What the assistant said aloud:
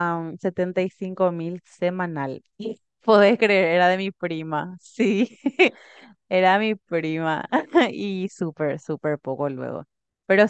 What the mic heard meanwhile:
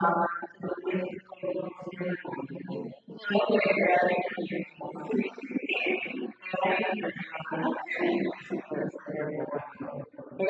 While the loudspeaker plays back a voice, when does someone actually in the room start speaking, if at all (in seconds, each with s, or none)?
none